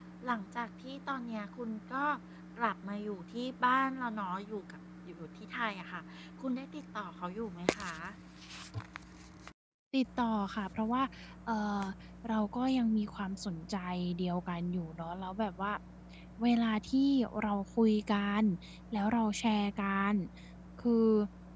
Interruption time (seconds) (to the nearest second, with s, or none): none